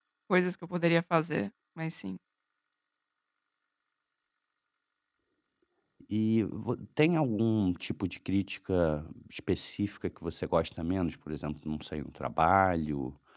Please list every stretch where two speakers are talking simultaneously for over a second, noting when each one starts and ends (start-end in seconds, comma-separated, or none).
none